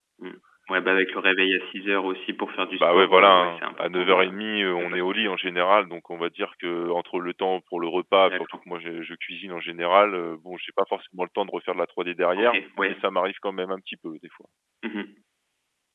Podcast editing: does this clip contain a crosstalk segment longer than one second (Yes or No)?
Yes